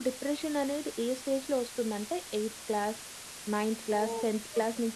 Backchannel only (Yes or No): No